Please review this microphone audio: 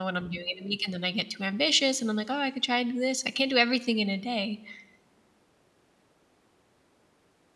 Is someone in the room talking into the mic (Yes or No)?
Yes